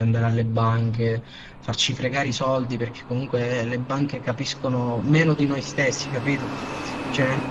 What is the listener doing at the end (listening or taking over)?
listening